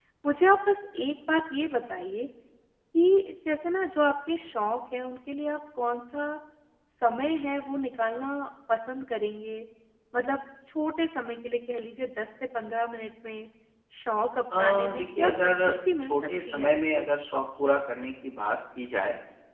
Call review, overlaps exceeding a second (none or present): present